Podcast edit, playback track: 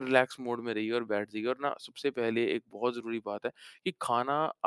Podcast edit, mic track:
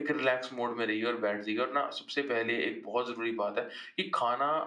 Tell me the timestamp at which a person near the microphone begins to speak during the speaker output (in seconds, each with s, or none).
none